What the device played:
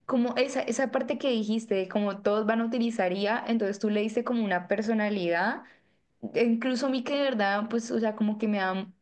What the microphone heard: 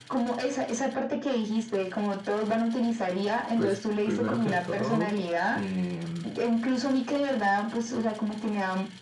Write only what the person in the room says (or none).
pues primero que todo, em,